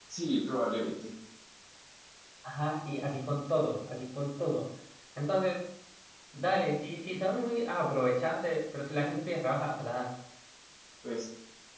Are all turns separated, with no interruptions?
Yes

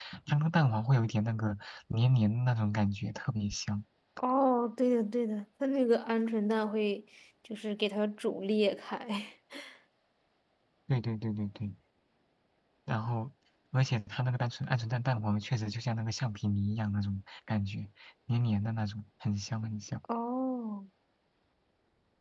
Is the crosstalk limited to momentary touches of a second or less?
Yes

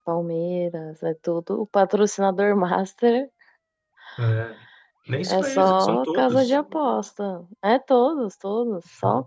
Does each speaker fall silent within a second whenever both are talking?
No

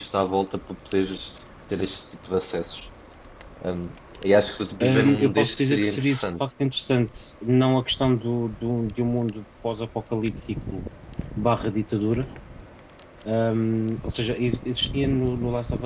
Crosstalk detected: Yes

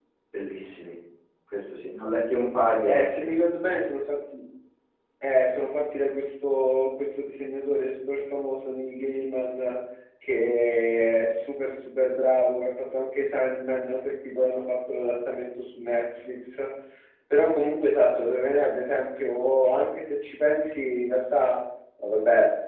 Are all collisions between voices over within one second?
Yes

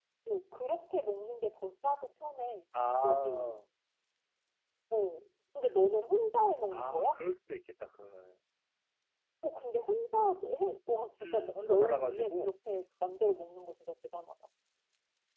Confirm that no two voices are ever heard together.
No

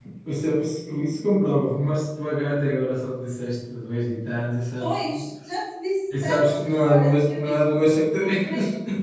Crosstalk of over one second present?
Yes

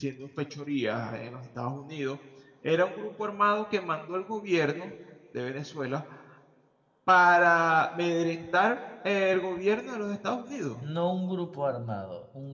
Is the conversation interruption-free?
Yes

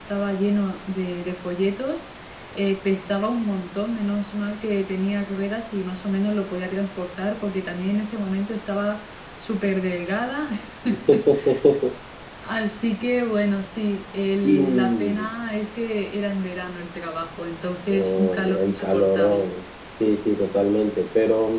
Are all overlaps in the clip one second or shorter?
No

